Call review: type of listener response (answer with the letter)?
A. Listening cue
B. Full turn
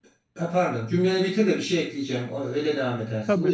B